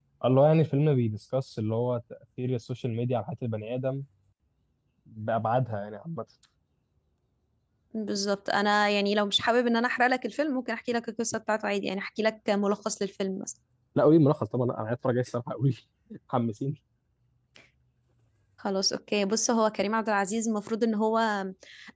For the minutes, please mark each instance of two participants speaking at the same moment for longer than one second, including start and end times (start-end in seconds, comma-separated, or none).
none